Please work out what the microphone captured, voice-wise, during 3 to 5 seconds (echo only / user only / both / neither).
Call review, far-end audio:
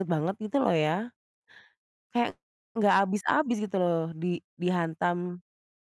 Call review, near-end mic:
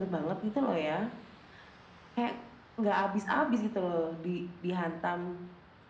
echo only